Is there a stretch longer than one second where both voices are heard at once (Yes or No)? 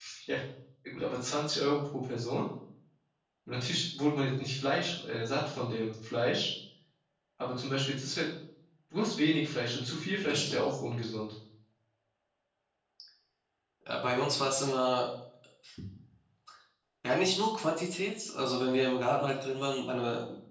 No